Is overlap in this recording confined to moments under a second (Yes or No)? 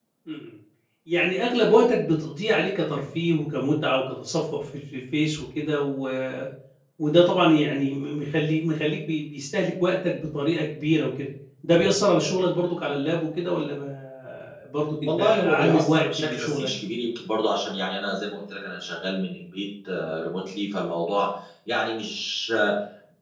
No